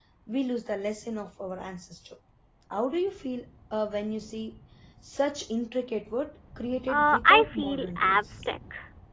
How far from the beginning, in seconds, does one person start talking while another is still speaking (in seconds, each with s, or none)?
6.9 s